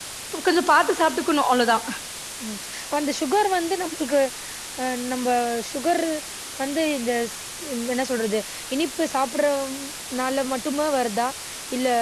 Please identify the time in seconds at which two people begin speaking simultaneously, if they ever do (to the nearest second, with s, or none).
none